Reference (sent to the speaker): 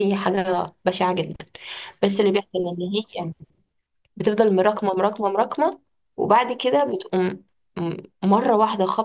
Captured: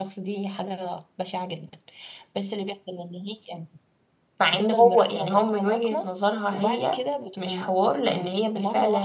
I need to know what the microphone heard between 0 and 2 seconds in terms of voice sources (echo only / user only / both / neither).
echo only